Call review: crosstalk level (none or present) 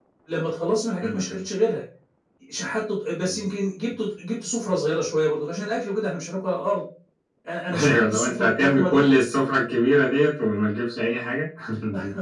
present